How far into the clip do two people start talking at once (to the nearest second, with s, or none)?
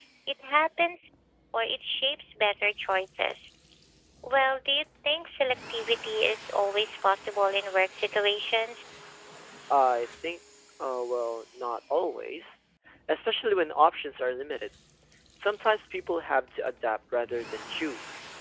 none